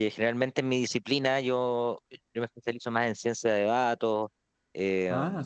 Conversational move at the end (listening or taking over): listening